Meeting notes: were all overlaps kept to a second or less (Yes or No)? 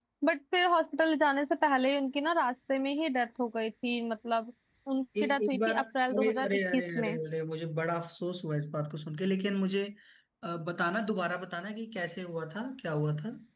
No